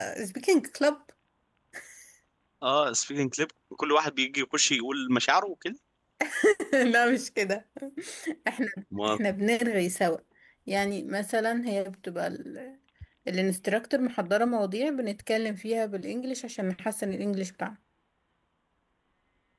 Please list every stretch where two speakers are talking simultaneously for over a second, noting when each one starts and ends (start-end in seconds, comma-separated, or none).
none